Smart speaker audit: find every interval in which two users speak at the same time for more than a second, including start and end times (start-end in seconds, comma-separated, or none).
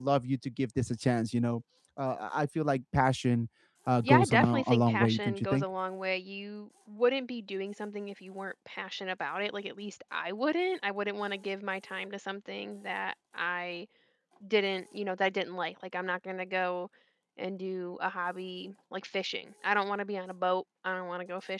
4.0-5.6